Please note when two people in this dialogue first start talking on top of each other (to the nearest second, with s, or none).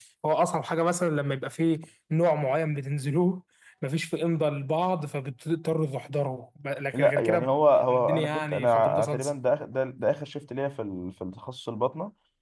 7 s